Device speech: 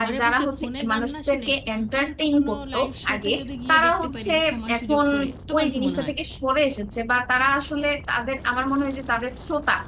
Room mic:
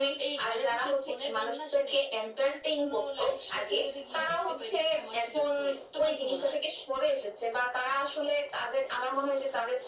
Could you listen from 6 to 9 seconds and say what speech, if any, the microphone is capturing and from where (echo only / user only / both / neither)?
echo only